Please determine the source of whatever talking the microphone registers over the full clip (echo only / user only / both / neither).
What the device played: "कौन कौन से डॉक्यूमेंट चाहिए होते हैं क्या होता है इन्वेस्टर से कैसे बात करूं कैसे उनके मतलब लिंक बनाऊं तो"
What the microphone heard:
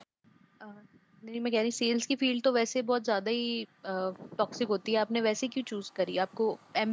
user only